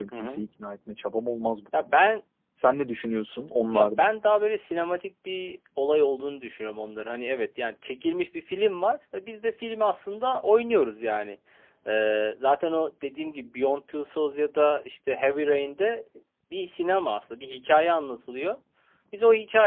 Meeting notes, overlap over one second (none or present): none